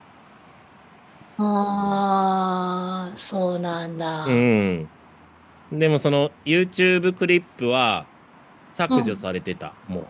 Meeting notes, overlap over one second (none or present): none